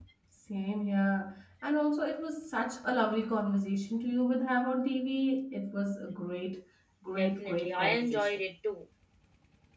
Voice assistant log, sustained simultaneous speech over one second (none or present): present